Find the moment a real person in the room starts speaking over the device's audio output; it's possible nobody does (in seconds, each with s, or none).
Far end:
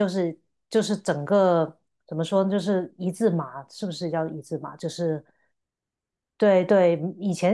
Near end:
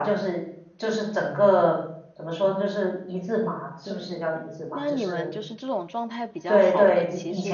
3.8 s